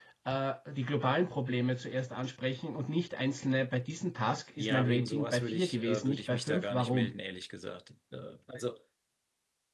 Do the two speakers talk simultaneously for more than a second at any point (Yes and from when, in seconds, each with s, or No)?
Yes, from 4.6 s